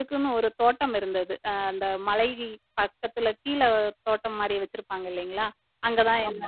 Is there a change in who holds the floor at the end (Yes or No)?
No